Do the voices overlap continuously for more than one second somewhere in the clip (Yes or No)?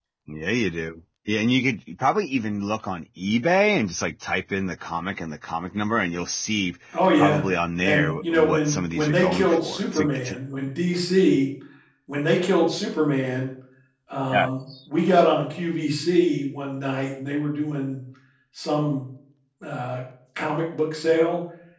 Yes